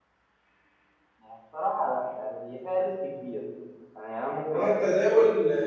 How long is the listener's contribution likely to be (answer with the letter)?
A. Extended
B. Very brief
A